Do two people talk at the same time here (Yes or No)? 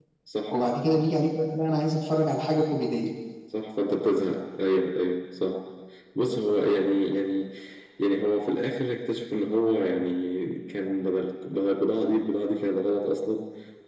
No